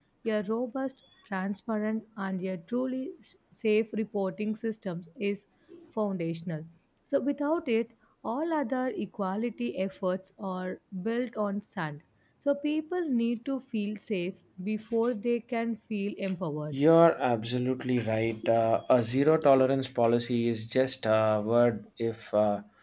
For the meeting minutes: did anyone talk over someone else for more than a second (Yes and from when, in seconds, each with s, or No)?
No